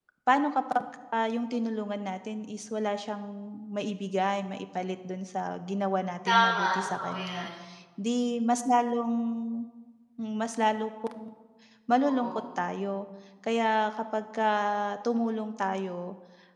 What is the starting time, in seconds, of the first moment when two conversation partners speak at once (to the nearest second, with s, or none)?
6 s